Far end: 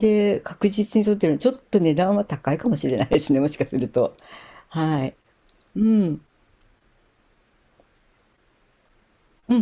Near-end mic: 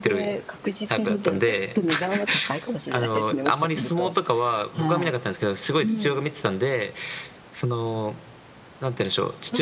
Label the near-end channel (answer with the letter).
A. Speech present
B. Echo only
A